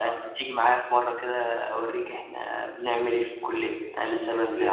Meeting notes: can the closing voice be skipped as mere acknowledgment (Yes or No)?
No